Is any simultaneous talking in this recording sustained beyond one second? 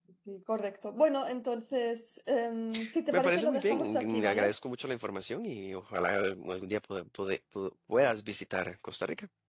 Yes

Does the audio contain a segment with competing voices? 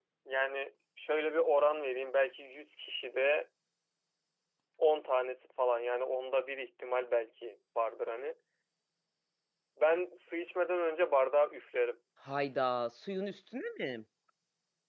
No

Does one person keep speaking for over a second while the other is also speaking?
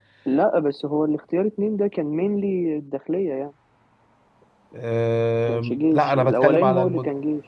Yes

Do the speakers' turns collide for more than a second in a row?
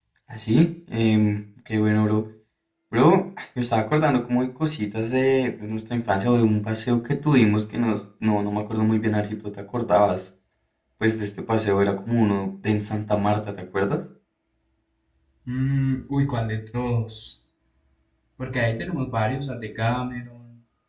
No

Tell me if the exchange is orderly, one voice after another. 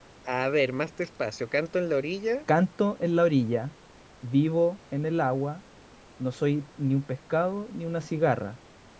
Yes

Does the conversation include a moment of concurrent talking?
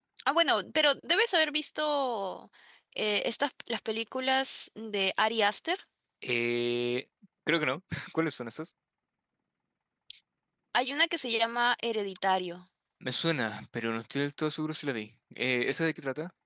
No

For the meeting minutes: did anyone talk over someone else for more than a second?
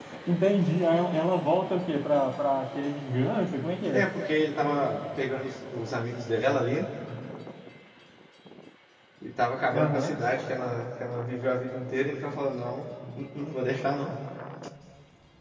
No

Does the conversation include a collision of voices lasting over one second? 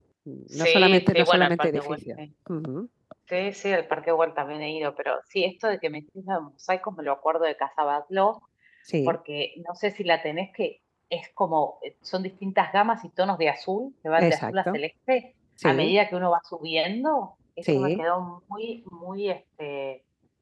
Yes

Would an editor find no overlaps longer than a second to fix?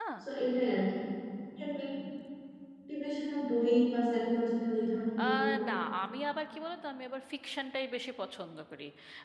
Yes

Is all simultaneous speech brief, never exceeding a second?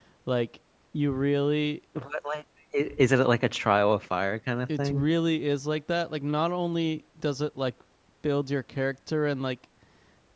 Yes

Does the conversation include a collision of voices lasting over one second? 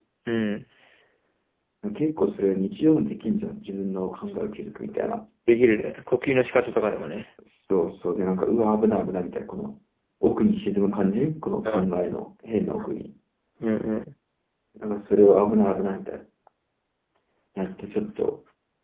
No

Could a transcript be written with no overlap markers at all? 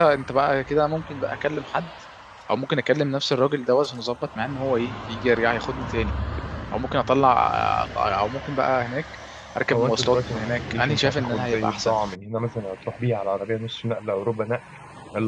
No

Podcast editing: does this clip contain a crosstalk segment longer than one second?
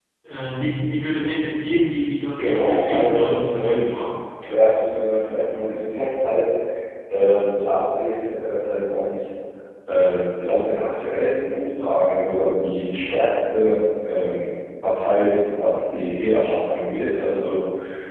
Yes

